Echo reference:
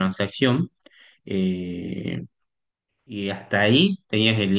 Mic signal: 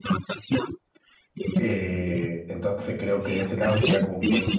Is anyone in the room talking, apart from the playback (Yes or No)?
Yes